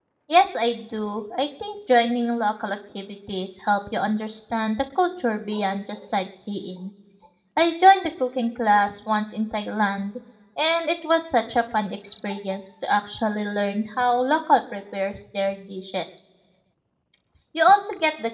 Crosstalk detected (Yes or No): No